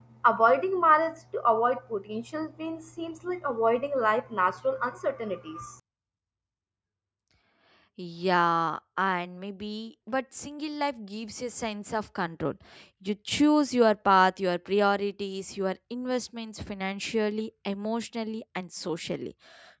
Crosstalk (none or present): none